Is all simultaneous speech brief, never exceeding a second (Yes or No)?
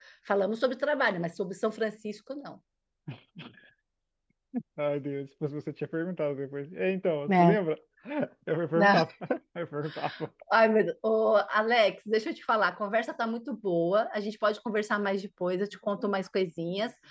Yes